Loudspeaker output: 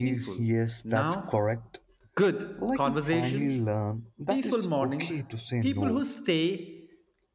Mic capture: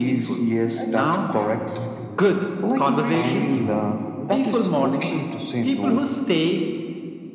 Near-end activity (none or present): present